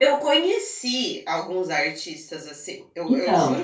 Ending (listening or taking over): listening